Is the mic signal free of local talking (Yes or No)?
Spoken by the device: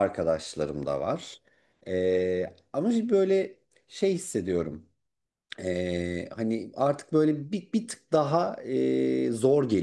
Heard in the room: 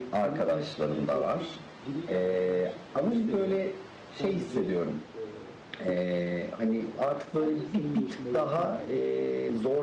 No